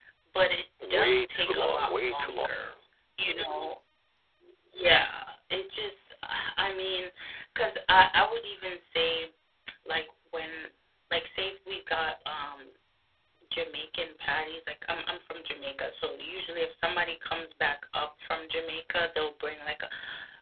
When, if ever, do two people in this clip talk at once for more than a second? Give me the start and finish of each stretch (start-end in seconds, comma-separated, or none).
0.9-2.5